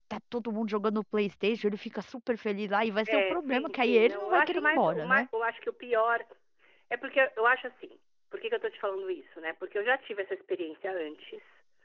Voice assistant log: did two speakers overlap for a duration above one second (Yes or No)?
Yes